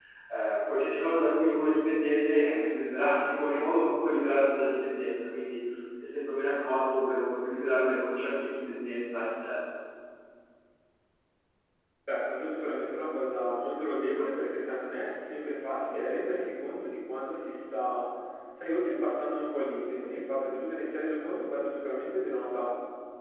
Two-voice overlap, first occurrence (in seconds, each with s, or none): none